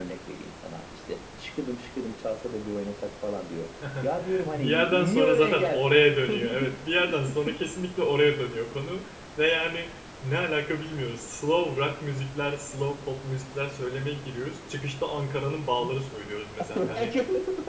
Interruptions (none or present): present